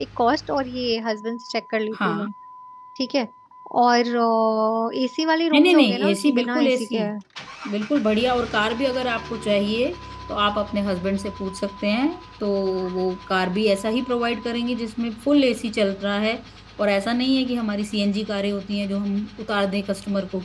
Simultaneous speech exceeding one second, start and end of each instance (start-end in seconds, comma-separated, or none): 5.5-7.0